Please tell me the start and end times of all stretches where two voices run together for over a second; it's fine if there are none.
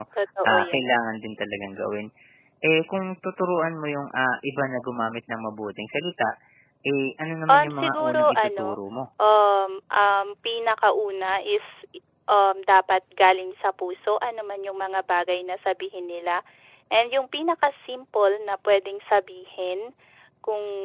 7.5-8.8

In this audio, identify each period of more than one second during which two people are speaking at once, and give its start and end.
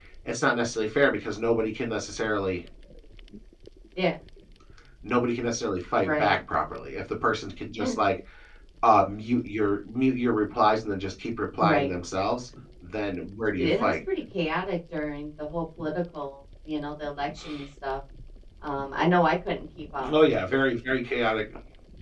none

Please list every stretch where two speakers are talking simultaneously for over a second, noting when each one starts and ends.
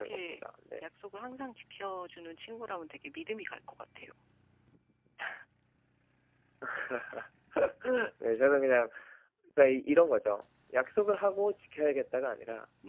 none

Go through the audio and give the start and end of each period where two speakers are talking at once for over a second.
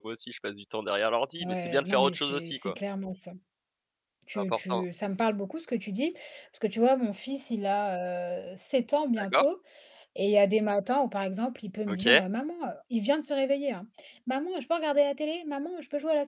1.4-2.7

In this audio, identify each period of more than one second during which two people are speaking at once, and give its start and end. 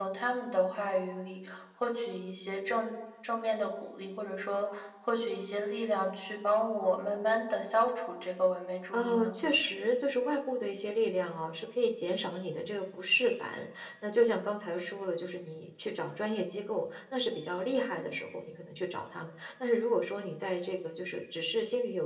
none

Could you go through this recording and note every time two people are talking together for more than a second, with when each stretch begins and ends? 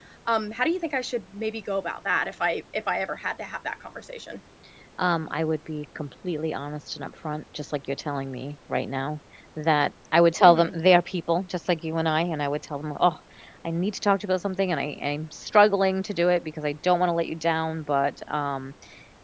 none

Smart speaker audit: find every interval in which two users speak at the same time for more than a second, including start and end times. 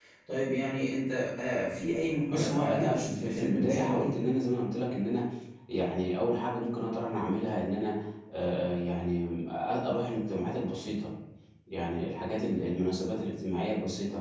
2.3-4.2

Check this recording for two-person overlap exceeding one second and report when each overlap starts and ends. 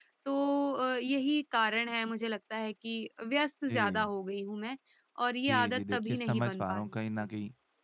5.5-7.3

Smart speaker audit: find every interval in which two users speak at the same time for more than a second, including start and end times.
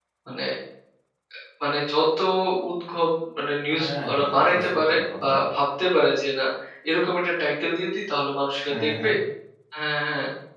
3.7-5.3

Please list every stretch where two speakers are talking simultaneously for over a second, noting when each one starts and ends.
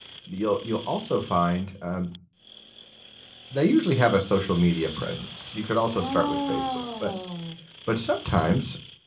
5.9-7.1

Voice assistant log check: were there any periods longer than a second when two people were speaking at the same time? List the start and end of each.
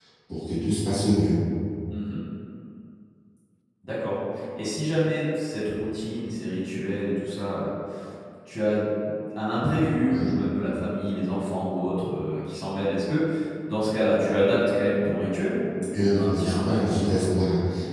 15.9-17.3

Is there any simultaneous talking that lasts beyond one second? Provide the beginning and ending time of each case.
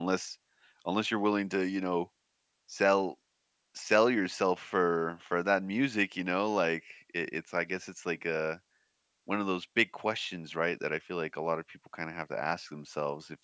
none

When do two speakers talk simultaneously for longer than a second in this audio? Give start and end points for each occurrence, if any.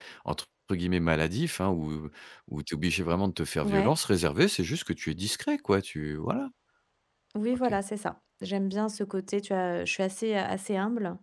none

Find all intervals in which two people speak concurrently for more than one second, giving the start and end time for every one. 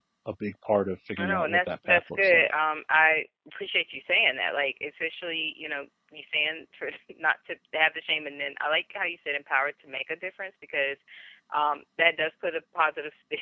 1.2-2.5

